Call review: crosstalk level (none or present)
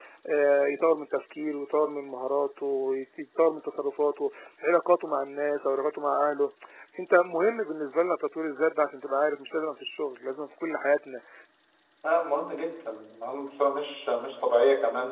none